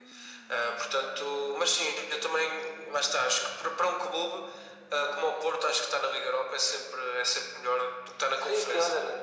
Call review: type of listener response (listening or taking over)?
taking over